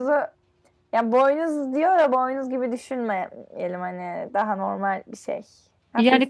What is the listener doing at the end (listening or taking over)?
taking over